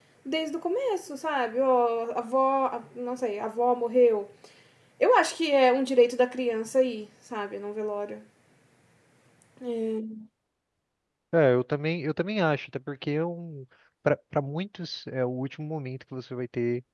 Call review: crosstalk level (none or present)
none